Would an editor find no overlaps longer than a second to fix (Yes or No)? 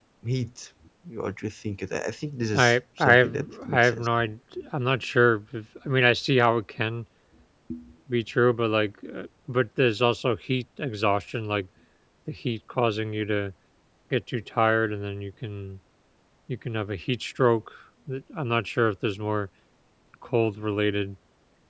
No